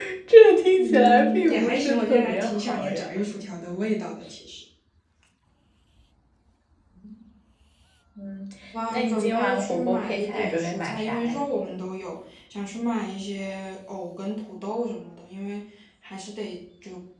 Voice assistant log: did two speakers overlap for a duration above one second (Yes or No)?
Yes